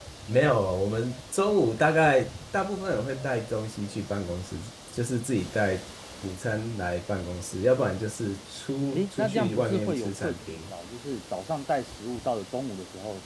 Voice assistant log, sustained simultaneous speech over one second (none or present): present